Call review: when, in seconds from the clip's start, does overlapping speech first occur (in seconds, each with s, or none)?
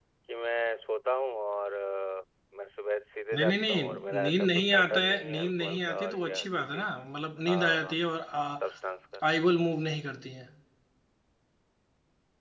3.3 s